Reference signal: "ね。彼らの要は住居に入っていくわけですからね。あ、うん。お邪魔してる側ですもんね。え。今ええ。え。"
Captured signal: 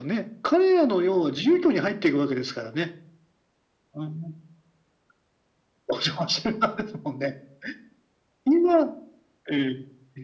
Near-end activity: none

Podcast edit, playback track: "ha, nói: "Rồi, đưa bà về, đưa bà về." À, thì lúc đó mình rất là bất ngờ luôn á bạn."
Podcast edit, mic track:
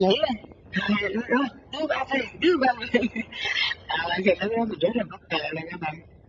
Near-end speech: none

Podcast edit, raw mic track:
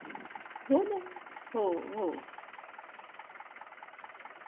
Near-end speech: present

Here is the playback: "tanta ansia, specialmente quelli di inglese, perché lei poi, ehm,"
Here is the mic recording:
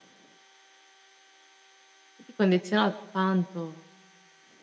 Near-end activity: present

